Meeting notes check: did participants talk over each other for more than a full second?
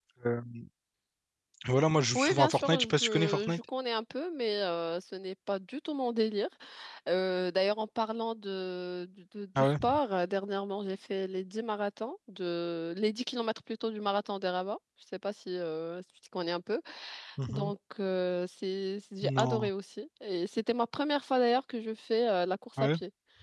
Yes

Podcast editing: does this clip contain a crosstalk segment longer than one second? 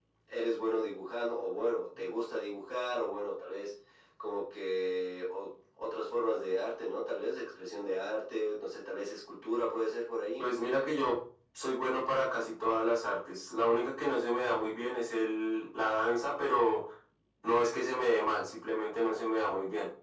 No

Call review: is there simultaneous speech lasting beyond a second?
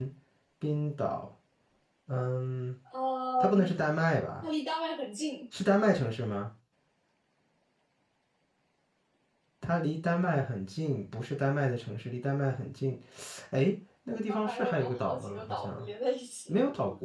Yes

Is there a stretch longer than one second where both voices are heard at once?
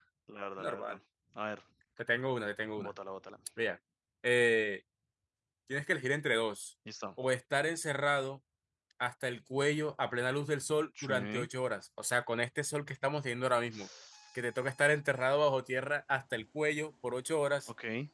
No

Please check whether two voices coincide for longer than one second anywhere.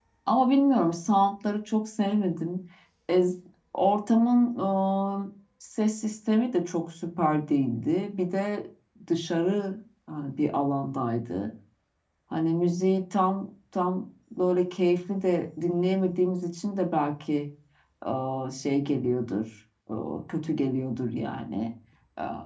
No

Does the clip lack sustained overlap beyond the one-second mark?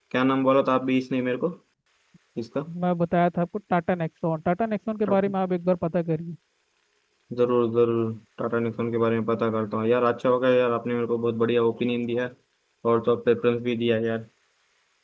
Yes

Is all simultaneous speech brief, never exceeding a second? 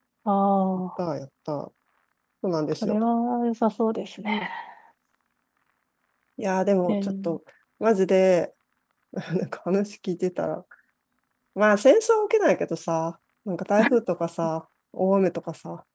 Yes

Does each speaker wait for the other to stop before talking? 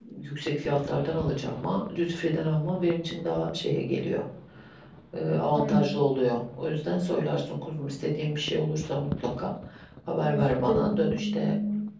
No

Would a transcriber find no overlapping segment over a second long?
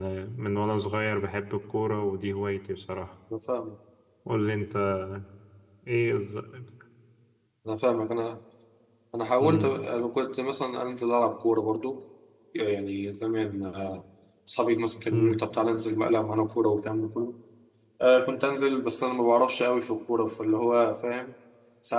Yes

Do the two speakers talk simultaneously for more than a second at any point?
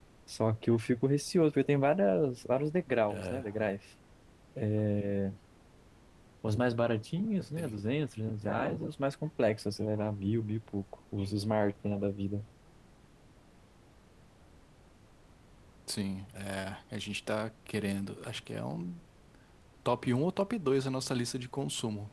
No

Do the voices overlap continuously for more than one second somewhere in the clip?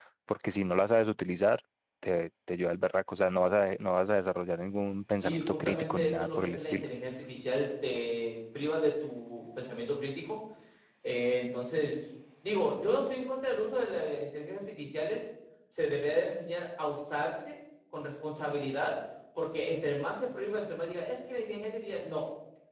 Yes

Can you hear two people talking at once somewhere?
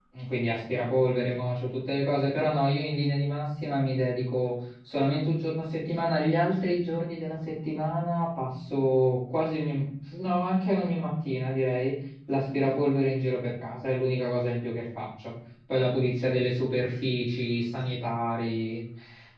No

